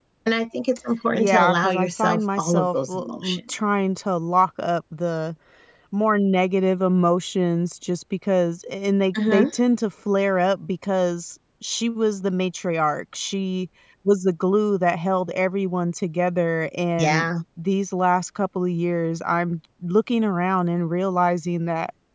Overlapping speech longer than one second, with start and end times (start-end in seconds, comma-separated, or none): 1.1-3.4